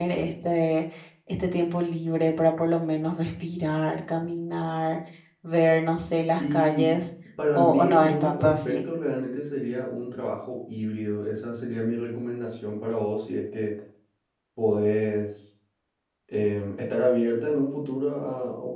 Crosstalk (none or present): present